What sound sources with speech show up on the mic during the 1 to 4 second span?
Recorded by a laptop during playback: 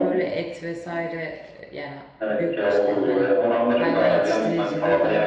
both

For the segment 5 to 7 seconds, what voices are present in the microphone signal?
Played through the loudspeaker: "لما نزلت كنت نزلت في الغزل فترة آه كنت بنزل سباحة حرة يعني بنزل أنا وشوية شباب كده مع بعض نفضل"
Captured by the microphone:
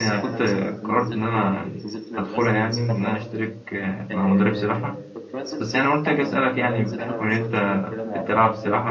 both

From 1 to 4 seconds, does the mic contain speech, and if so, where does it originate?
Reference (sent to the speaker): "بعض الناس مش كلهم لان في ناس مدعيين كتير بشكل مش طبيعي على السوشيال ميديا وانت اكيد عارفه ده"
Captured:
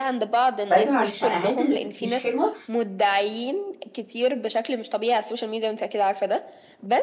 both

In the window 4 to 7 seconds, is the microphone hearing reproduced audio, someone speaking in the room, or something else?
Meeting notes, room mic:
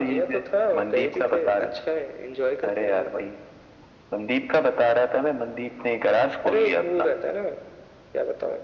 echo only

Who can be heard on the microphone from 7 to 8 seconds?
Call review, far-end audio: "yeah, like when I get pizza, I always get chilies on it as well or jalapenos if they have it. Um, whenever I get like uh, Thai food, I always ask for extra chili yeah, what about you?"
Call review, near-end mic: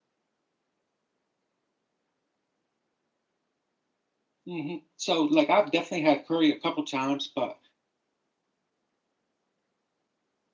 user only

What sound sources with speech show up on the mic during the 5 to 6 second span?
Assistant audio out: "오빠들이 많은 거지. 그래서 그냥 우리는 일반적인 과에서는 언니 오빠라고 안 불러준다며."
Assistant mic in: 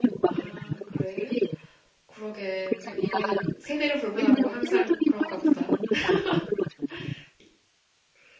both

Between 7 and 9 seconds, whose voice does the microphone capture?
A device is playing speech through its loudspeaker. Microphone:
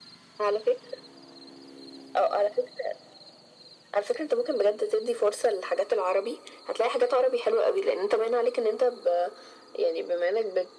echo only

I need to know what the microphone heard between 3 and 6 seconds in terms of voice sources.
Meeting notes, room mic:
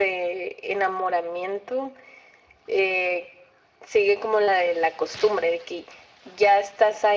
echo only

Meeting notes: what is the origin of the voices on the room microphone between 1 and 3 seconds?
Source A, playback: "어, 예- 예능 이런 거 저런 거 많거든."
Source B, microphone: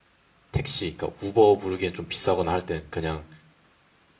user only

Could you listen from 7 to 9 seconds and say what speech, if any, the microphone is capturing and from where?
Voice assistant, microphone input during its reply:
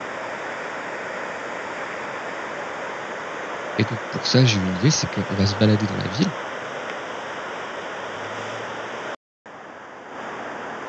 neither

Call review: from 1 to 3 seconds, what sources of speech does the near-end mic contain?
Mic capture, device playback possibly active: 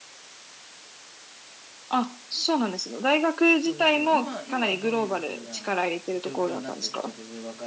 echo only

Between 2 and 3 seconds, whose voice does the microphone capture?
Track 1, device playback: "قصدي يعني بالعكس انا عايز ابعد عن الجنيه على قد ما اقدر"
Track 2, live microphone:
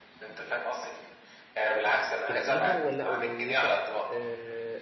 both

